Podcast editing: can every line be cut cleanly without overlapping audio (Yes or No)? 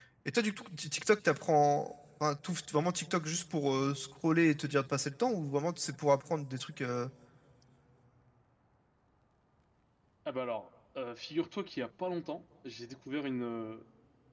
Yes